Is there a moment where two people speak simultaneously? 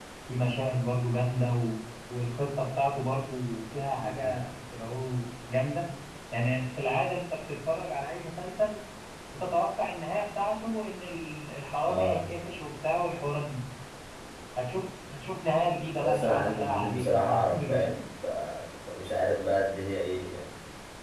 Yes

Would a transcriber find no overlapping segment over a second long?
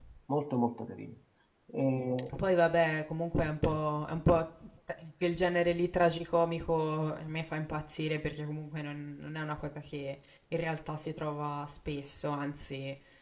Yes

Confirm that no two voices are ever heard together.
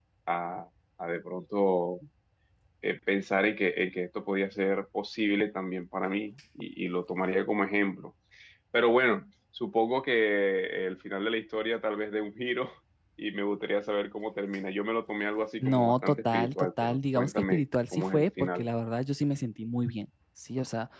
No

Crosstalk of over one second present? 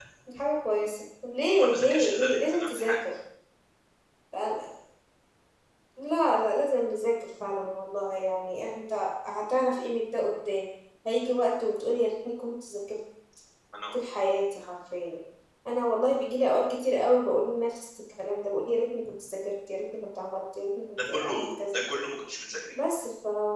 Yes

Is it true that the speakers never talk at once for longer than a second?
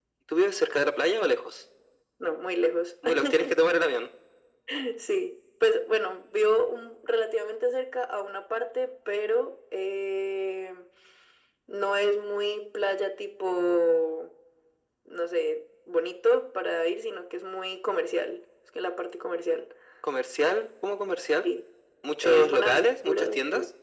No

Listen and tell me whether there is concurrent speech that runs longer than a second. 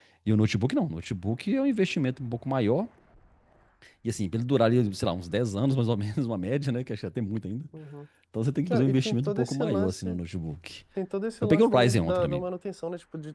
Yes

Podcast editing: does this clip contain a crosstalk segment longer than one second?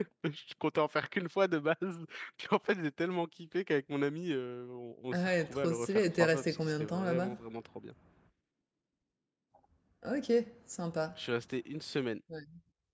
Yes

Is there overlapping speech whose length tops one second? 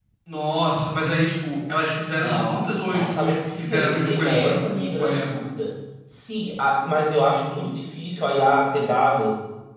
Yes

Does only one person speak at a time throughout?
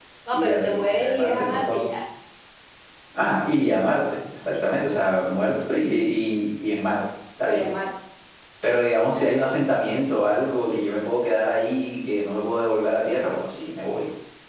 No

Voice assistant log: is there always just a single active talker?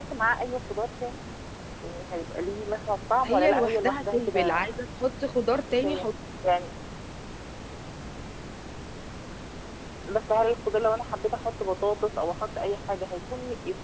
No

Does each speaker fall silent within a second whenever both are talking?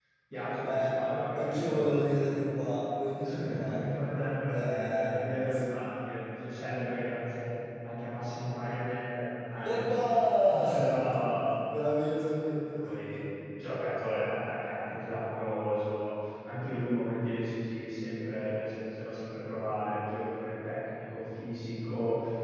No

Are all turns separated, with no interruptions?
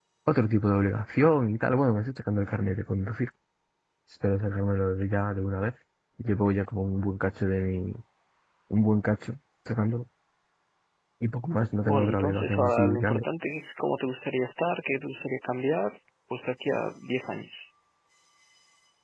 No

